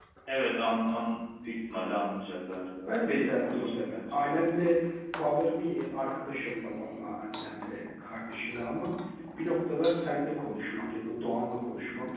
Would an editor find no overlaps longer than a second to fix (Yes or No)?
No